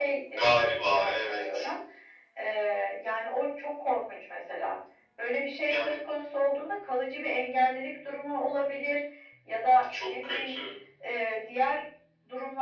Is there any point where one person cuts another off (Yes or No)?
Yes